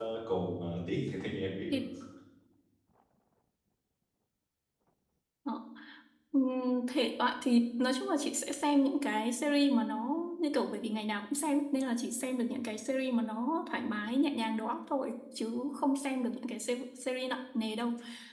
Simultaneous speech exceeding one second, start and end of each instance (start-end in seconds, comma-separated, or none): none